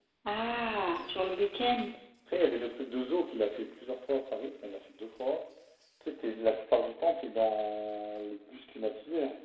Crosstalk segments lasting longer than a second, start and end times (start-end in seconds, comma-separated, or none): none